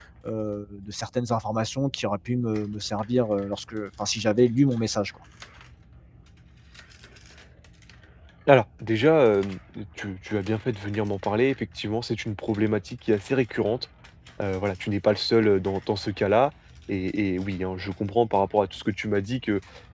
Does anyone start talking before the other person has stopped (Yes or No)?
No